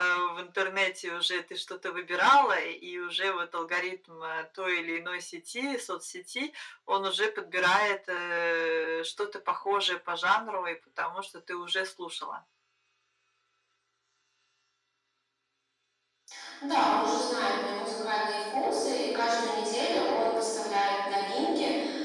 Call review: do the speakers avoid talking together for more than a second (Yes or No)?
Yes